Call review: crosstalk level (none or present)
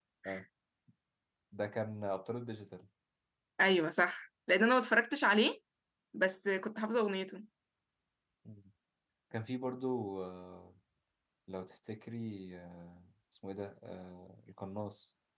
none